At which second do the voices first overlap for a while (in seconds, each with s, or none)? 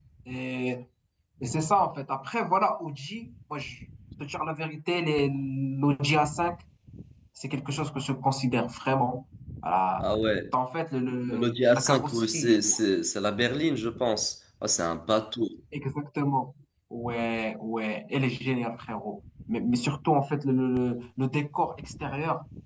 11.3 s